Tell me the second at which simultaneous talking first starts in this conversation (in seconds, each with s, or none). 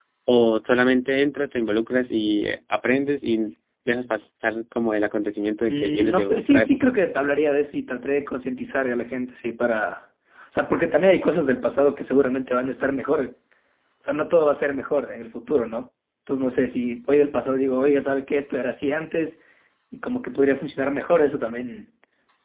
5.7 s